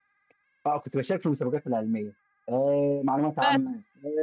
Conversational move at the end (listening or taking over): listening